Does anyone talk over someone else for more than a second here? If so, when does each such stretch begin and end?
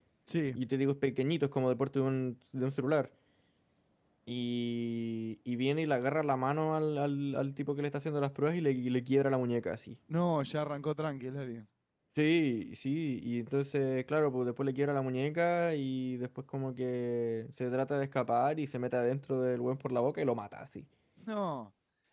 none

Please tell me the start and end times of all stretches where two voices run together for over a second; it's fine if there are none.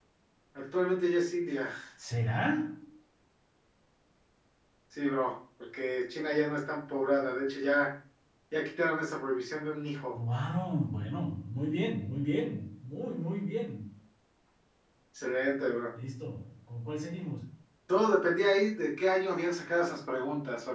none

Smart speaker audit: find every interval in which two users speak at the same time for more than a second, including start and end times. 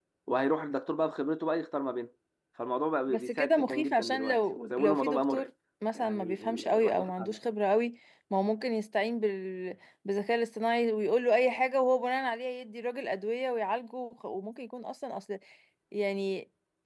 3.1-5.5, 6.0-7.4

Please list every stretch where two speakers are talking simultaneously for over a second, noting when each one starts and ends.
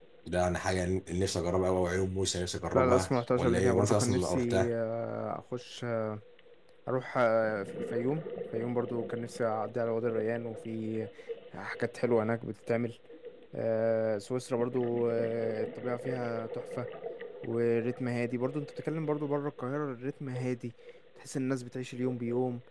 2.8-4.7

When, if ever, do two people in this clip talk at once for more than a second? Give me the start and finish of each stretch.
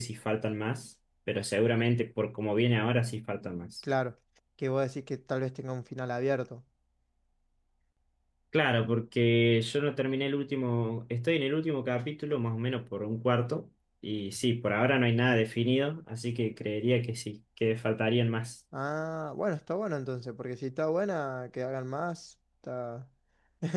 none

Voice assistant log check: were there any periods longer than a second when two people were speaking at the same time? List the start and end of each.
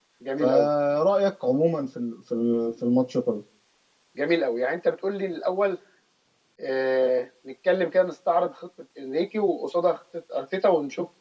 none

